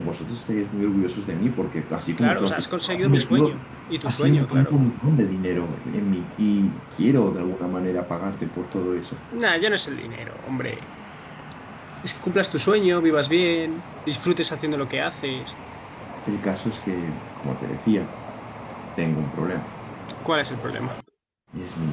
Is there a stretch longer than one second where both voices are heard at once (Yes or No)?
Yes